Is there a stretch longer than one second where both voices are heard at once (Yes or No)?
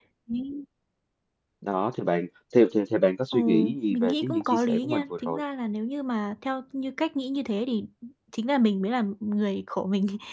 Yes